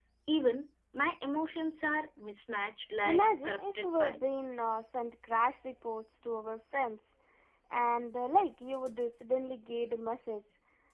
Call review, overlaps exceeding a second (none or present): present